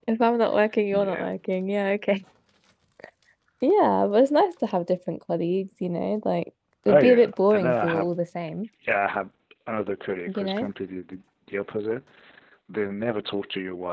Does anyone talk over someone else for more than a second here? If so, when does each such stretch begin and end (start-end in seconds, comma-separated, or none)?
6.9-8.1